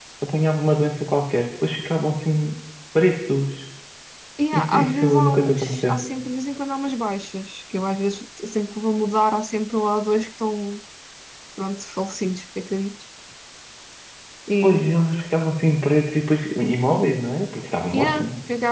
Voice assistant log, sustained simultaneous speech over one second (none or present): present